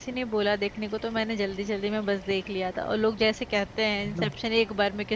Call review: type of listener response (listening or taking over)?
listening